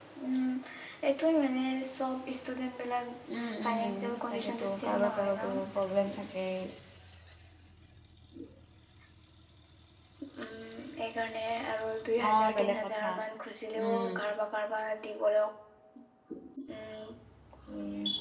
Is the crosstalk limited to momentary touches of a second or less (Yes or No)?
No